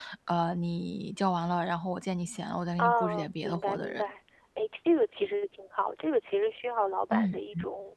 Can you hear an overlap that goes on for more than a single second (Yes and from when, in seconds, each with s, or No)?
Yes, from 2.8 s